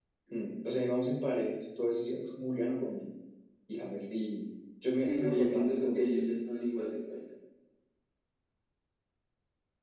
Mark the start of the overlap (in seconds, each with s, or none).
5.0 s